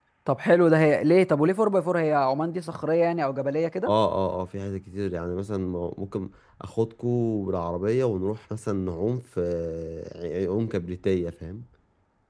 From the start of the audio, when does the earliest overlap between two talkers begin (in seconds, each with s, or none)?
none